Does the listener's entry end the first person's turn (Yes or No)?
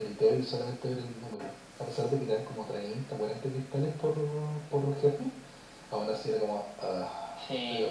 Yes